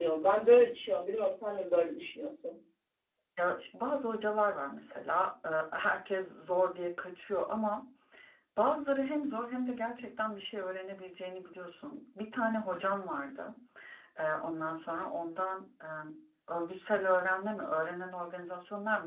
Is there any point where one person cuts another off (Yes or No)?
No